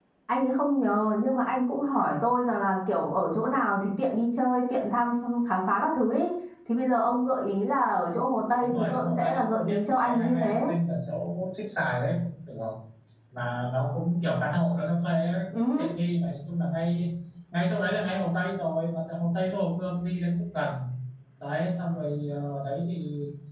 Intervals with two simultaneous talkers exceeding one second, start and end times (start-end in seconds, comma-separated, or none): 8.6-10.6